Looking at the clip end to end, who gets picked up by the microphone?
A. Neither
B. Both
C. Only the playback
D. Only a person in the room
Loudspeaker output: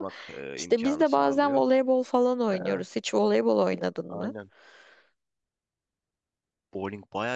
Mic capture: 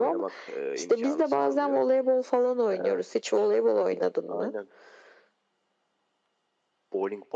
C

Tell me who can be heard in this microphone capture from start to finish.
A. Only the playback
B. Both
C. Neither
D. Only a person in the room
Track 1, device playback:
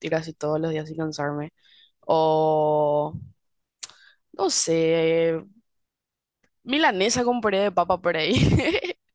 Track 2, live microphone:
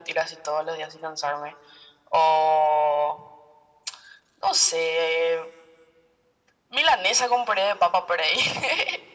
A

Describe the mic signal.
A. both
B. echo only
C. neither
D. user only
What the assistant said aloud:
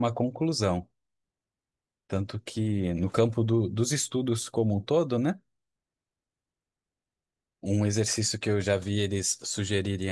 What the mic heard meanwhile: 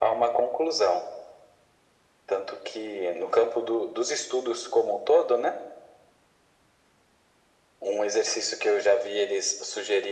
B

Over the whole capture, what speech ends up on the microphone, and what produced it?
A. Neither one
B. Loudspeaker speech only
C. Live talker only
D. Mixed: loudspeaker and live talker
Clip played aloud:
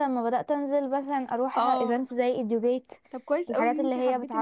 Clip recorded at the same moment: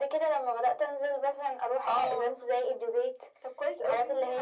B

